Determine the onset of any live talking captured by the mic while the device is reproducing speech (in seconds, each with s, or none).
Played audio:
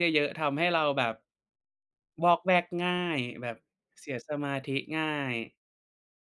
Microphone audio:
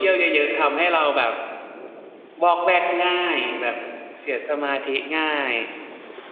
none